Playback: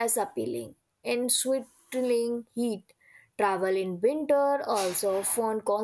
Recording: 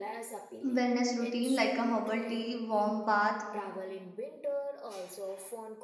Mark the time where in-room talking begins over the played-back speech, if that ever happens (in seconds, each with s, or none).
0.6 s